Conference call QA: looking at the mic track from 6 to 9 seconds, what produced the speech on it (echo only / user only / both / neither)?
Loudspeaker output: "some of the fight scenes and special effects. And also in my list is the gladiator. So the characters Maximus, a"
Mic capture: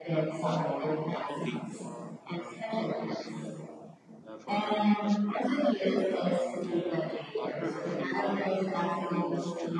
both